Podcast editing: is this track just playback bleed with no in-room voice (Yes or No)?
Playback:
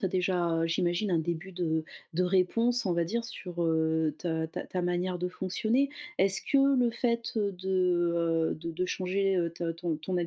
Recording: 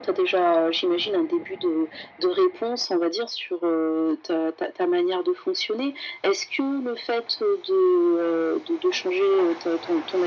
Yes